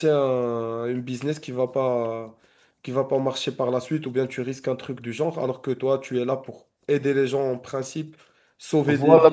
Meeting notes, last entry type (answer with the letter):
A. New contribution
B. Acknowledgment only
A